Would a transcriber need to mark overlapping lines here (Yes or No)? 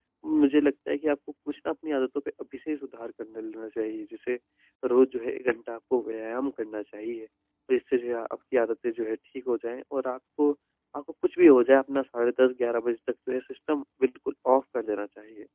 No